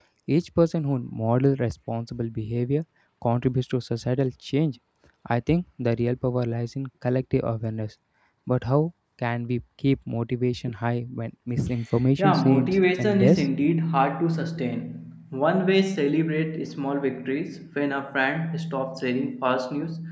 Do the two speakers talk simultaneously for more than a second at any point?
Yes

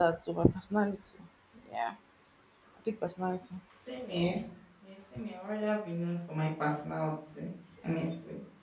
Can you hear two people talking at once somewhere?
No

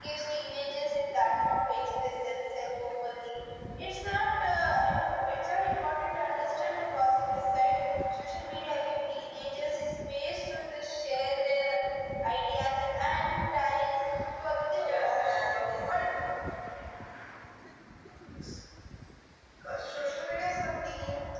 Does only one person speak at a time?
No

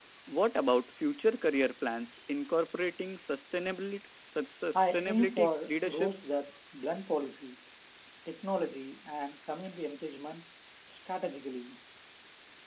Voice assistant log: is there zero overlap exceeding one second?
No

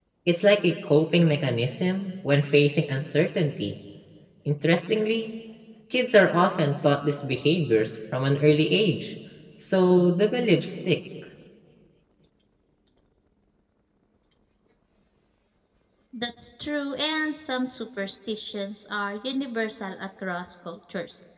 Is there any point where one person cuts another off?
No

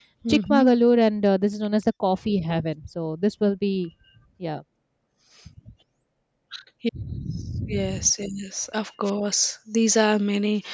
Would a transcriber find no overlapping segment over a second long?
Yes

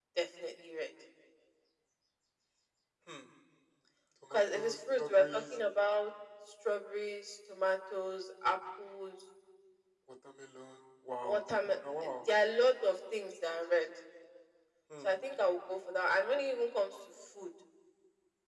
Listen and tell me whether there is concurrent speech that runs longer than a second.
Yes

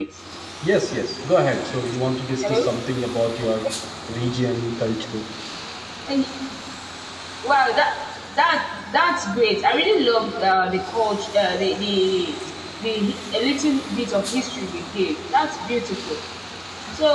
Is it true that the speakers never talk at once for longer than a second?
Yes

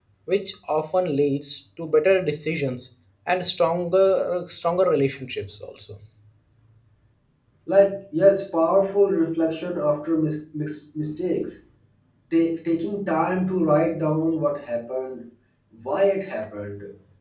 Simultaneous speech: No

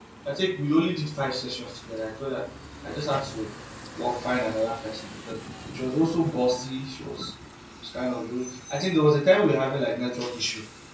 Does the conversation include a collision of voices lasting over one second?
No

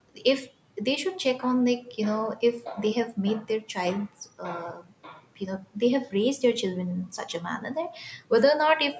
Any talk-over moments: No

